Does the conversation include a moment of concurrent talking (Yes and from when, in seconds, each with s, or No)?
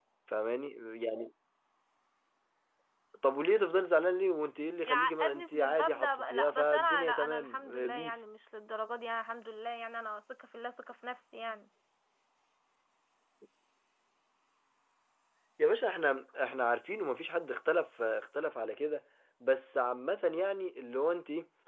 Yes, from 4.9 s